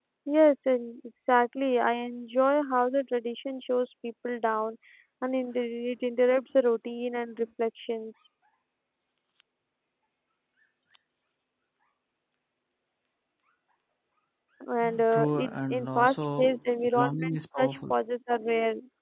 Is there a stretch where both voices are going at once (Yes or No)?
Yes